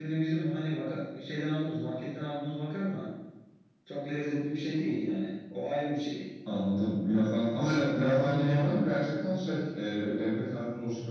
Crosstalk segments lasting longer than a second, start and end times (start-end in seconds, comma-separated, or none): 7.5-8.8